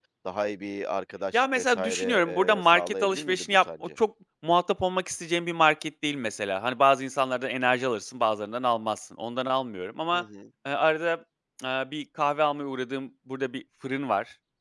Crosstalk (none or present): present